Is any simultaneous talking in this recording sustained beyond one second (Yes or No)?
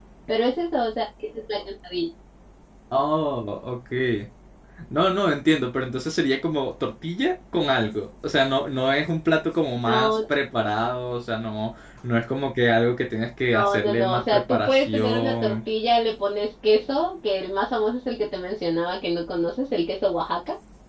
Yes